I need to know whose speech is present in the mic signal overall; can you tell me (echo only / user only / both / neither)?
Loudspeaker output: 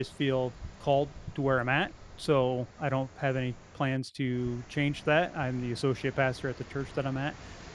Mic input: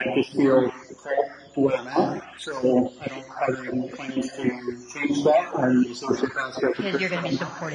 both